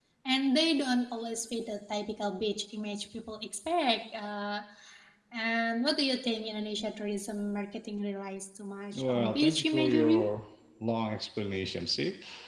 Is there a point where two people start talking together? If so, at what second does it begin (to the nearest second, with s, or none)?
9 s